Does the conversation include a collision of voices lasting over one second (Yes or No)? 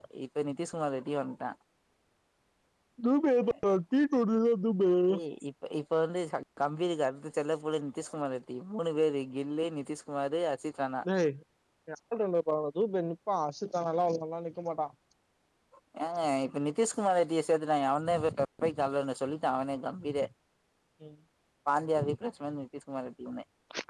No